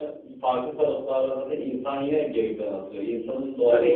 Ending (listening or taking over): taking over